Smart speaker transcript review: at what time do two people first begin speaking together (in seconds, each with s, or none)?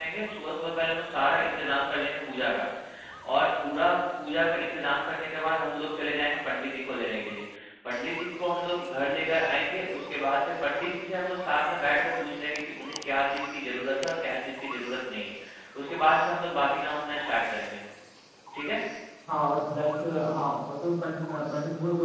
none